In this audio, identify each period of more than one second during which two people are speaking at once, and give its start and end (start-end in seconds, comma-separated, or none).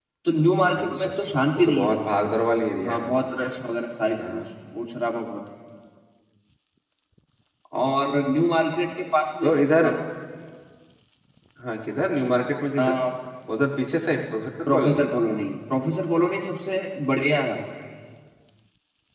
0.8-2.0